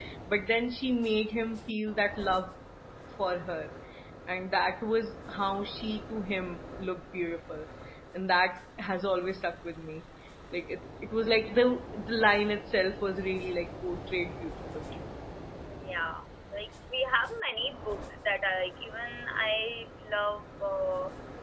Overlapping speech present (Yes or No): No